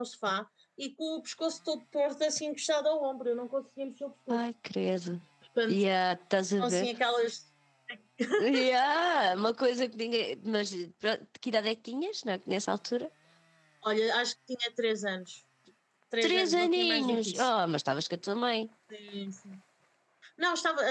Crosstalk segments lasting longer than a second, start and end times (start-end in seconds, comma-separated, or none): 16.2-17.5